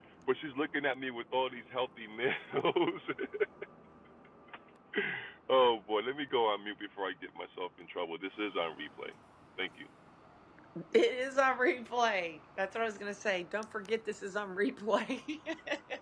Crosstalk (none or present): none